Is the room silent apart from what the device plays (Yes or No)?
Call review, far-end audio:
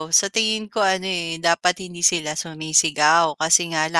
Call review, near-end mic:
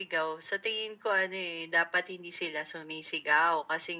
Yes